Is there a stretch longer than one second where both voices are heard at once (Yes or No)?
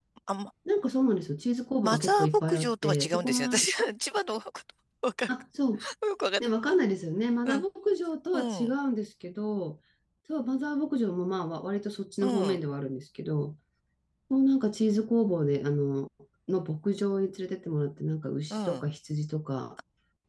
Yes